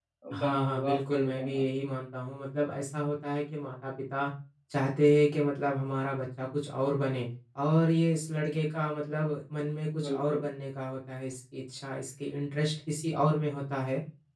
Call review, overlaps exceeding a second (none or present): present